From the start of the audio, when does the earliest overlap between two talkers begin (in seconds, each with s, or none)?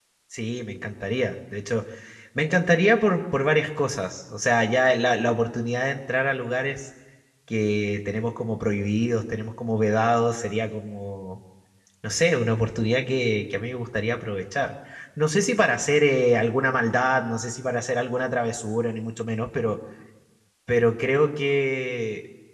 none